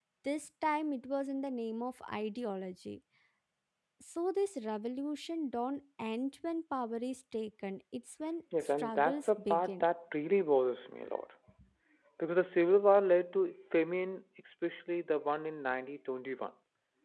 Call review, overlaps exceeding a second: present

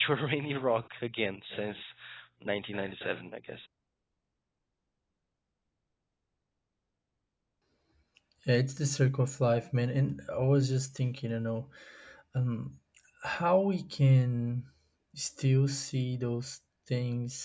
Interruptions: none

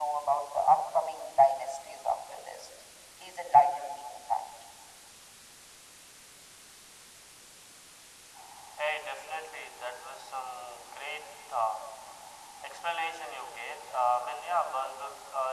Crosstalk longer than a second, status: none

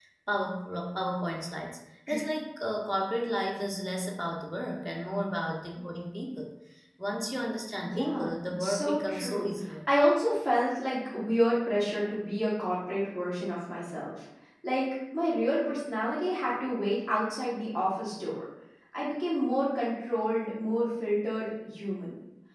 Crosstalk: present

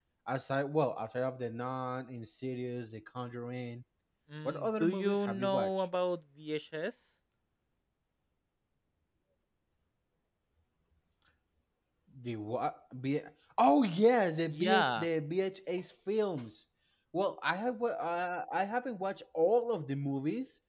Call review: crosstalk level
present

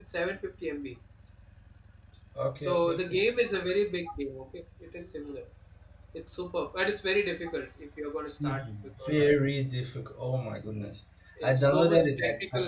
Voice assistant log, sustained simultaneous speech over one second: present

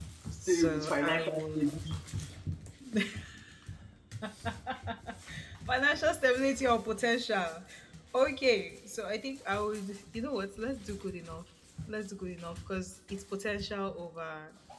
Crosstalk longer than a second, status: present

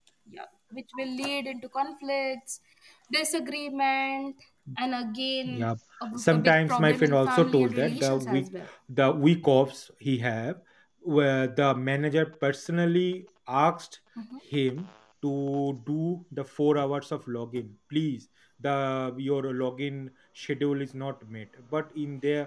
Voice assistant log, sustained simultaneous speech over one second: present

